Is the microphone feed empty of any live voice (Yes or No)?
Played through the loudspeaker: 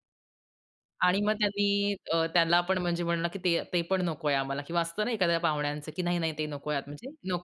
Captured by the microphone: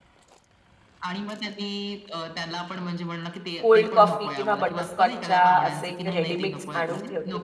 No